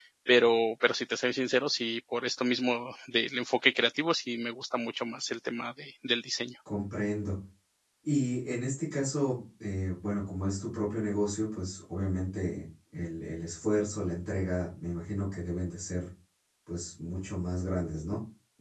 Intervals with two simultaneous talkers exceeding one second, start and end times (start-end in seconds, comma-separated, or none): none